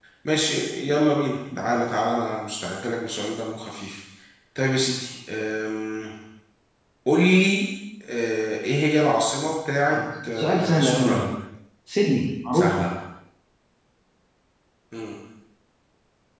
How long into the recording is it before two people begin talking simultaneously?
9.9 s

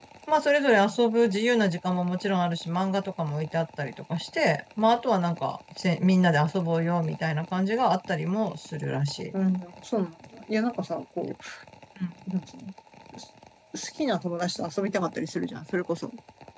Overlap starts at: none

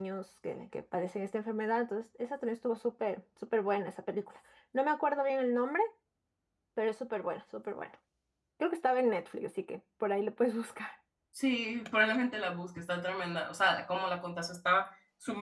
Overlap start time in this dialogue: none

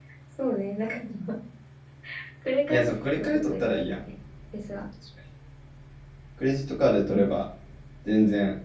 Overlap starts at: 2.7 s

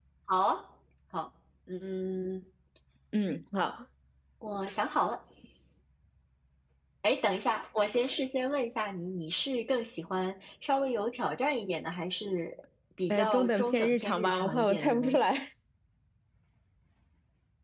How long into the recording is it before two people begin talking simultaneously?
13.1 s

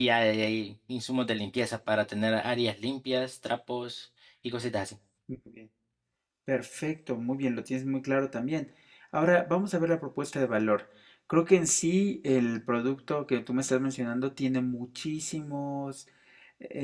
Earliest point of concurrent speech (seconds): none

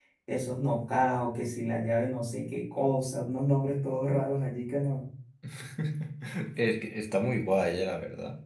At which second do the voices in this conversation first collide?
none

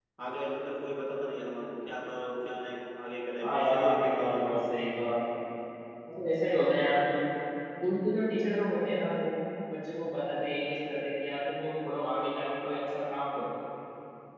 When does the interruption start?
3.4 s

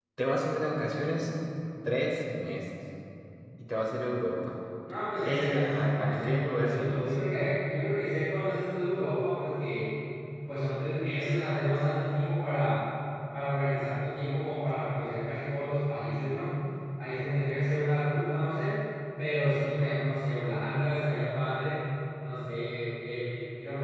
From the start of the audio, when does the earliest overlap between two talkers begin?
5.2 s

